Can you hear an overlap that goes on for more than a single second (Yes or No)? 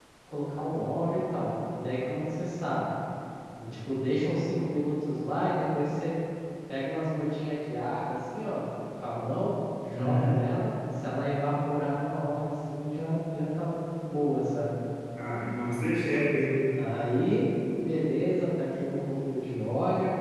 No